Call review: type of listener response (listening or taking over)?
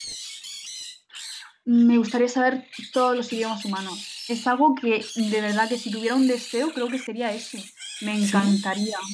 listening